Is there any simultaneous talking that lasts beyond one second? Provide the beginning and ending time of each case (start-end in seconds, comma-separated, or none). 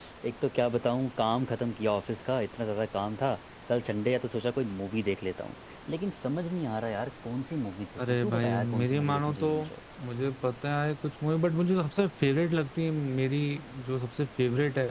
8.1-9.5